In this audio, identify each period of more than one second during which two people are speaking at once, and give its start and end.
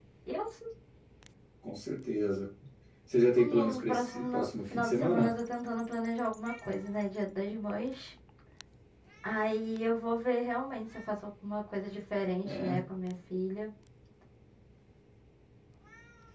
3.4-5.3

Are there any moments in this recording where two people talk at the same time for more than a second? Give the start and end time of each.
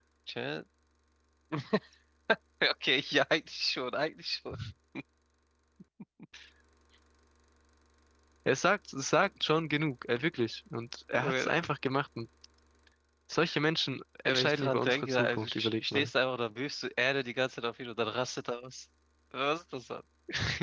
14.2-16.1

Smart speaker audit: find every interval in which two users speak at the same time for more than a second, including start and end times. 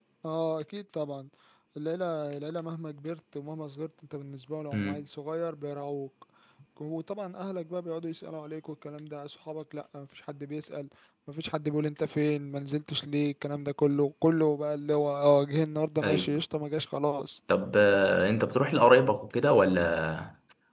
none

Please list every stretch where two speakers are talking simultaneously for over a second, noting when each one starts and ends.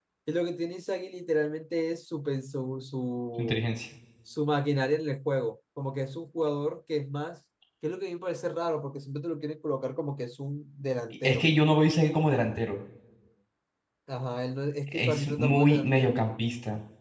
14.9-16.2

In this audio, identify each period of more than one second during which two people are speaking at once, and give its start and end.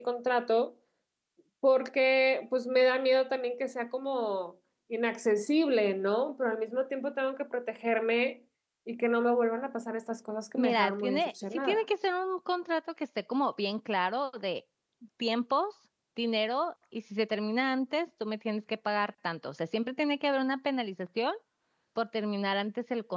10.6-11.8

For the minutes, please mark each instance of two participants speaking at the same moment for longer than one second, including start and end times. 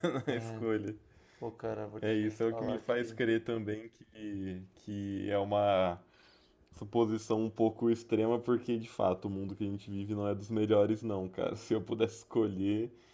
2.0-3.2

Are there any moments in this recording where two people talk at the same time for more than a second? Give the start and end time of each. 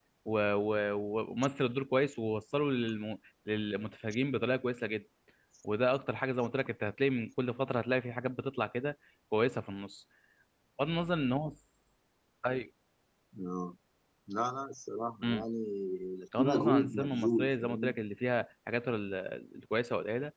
16.4-18.0

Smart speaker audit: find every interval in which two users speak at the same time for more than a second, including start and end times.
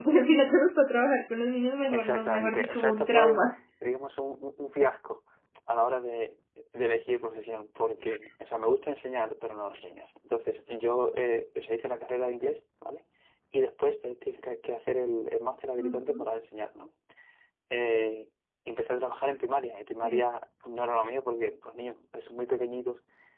1.9-3.4

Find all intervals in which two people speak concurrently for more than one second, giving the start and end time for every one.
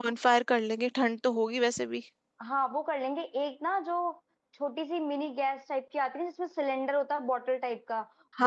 none

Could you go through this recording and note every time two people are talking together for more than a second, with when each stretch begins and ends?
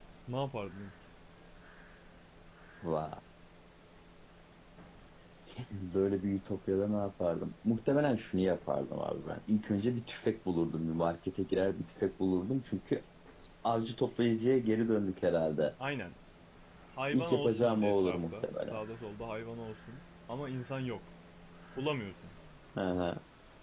17.1-18.8

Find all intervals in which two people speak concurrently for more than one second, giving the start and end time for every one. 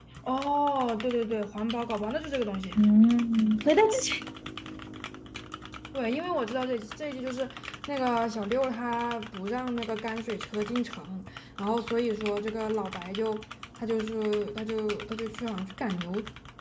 none

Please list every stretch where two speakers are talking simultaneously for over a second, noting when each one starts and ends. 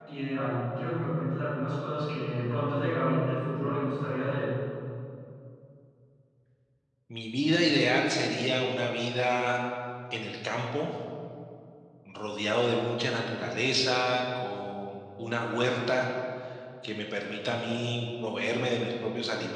none

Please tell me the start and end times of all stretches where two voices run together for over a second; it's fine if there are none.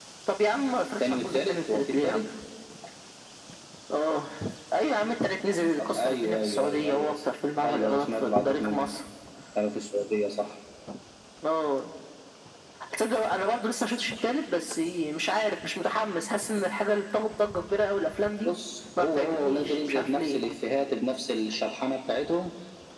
1.0-2.2, 5.8-7.1, 7.6-8.8, 19.0-20.4

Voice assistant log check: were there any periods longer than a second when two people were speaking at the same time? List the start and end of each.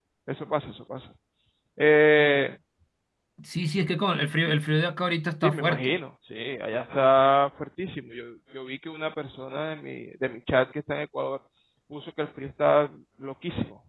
none

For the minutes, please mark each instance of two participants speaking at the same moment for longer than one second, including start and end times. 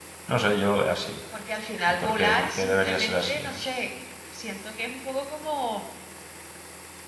1.9-3.7

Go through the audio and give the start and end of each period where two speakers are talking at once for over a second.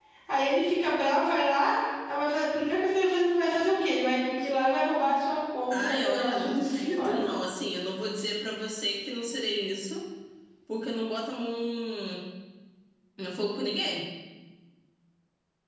5.7-7.2

